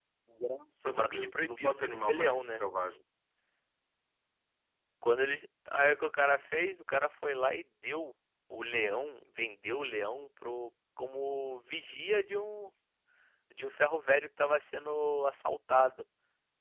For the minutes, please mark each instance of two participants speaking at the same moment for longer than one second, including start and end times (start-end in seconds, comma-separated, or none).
0.8-2.7